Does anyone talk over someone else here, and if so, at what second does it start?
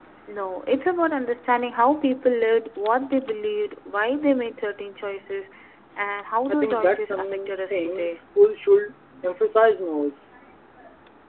6 s

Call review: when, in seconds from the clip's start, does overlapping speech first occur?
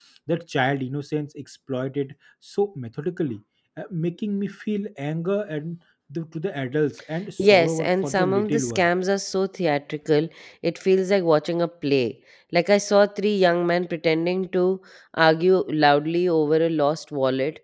7 s

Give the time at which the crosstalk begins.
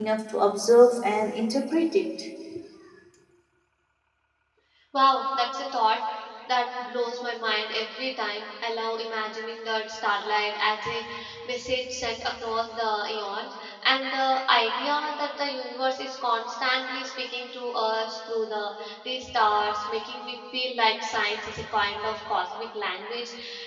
none

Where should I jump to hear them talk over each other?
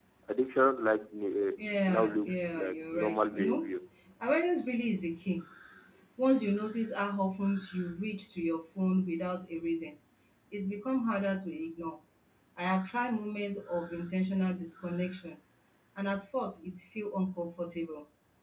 2 s

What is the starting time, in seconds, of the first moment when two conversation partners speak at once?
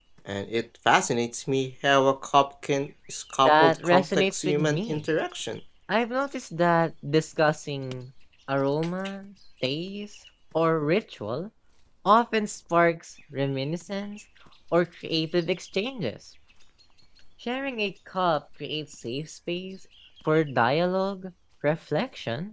3 s

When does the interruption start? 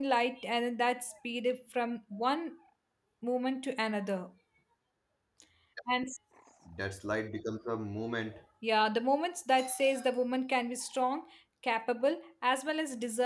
none

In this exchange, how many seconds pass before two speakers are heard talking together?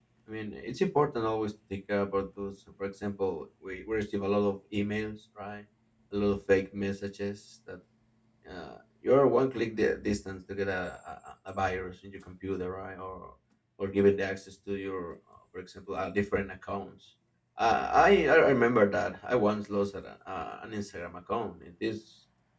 none

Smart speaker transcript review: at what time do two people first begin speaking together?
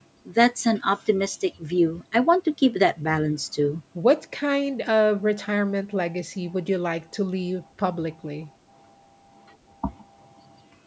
none

